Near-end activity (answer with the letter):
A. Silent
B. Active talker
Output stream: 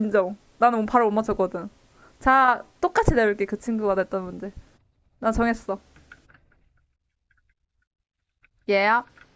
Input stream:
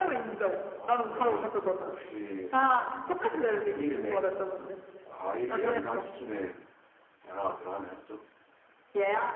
B